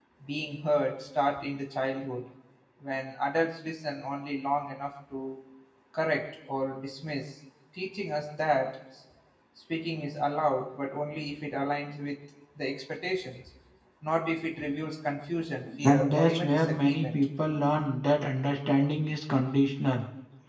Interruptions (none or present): present